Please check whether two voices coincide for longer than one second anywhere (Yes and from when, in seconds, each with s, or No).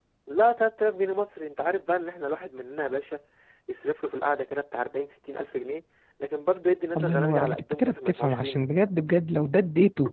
Yes, from 7.0 s